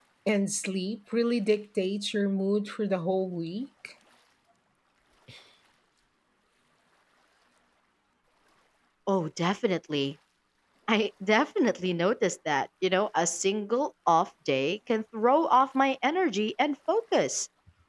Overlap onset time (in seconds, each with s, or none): none